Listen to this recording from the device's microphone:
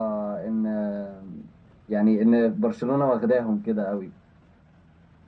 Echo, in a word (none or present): present